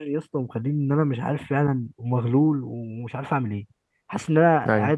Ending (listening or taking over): listening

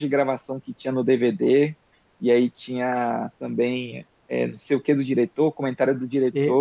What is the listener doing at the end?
taking over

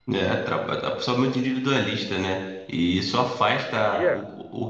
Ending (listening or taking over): listening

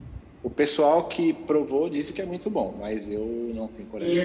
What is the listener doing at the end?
taking over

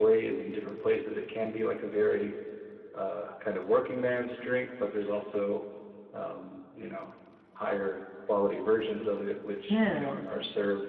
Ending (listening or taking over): listening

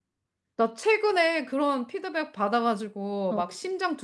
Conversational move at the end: listening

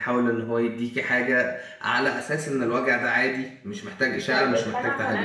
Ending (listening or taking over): taking over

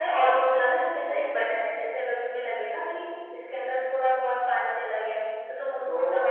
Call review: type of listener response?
listening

